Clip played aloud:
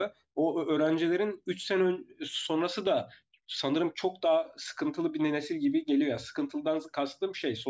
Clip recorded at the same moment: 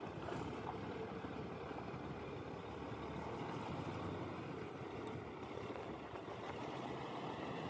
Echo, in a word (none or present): none